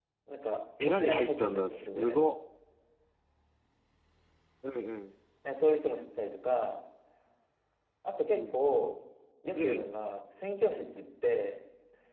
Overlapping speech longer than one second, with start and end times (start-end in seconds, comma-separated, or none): 0.8-2.2